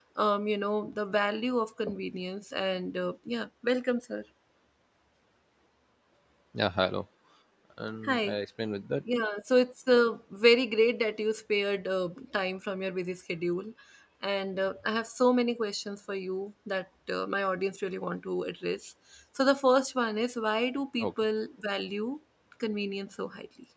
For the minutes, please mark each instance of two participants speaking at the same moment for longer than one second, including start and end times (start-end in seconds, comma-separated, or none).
none